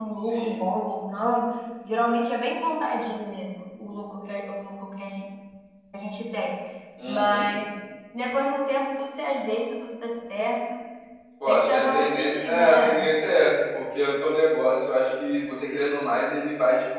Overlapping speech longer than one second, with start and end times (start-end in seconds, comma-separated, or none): 11.5-13.0